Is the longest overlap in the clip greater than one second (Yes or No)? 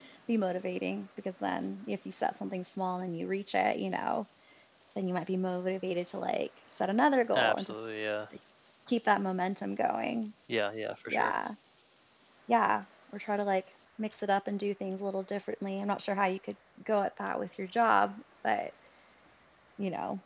No